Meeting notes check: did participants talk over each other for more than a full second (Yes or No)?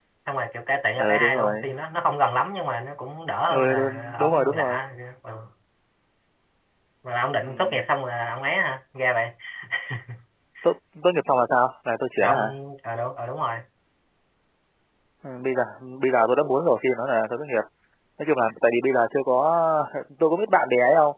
Yes